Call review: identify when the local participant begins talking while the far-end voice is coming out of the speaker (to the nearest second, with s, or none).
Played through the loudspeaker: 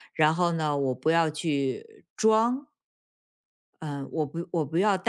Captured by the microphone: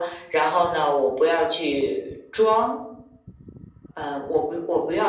none